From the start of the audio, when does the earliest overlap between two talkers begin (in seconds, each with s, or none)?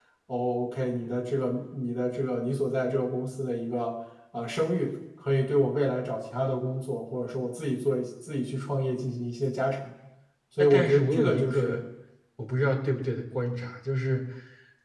10.6 s